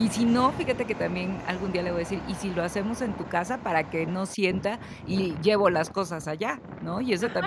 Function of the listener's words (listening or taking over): taking over